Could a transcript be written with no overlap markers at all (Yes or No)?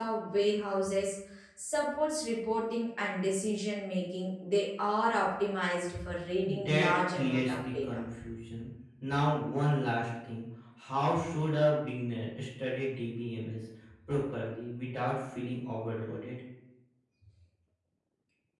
No